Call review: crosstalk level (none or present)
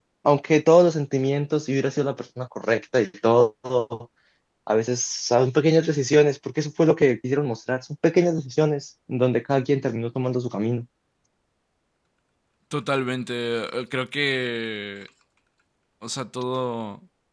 none